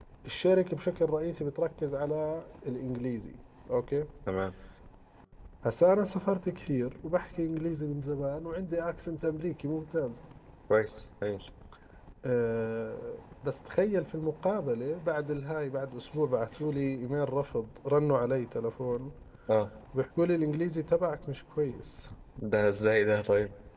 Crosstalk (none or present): none